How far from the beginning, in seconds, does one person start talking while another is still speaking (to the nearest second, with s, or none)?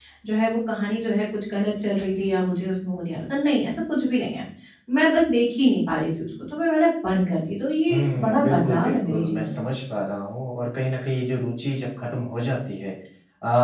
8 s